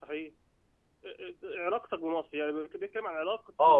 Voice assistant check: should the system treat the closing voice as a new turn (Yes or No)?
Yes